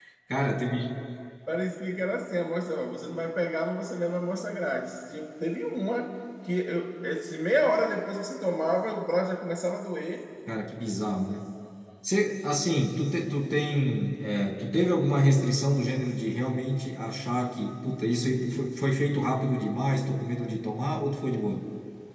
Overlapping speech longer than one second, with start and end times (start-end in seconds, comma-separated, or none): none